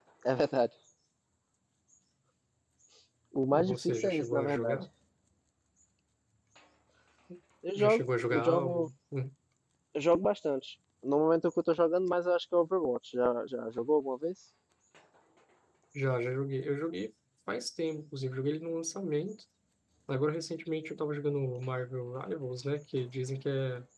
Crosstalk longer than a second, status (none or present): present